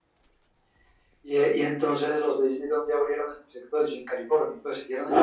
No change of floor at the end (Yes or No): No